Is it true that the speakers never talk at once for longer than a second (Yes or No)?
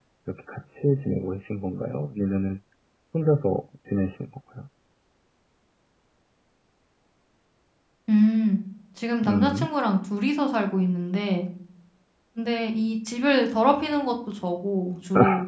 Yes